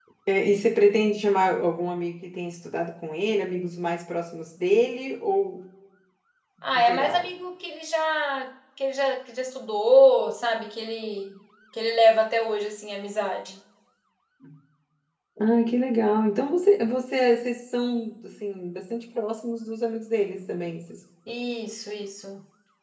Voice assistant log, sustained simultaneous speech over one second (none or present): none